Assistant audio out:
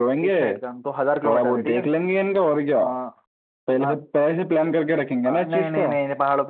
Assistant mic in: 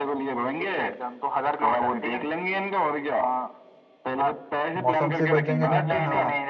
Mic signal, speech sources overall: both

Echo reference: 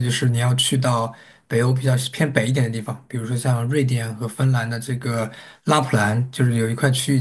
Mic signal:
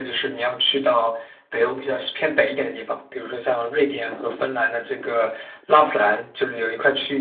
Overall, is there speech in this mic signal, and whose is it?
echo only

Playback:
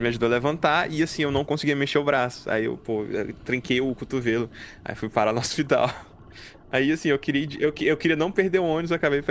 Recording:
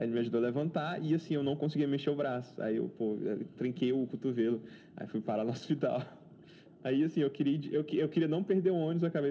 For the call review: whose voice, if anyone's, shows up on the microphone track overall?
echo only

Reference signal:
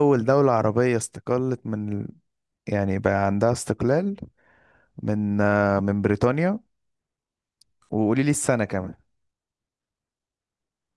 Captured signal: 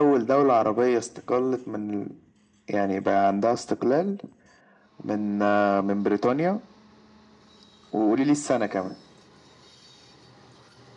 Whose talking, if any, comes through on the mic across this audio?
echo only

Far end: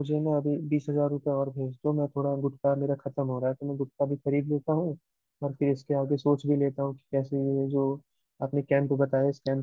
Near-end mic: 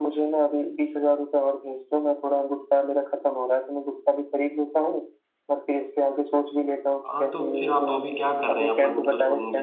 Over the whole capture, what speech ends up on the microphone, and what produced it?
both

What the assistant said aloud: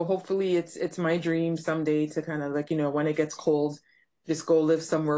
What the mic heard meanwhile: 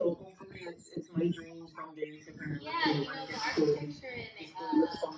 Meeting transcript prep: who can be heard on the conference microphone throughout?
both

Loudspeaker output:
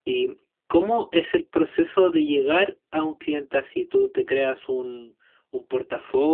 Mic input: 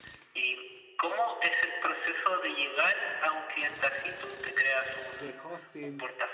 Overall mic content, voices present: both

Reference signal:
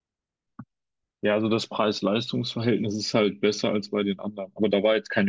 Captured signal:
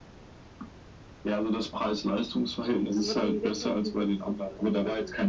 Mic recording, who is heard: both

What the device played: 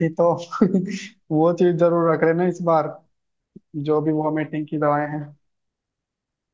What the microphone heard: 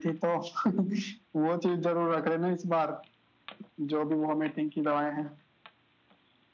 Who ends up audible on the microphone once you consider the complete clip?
echo only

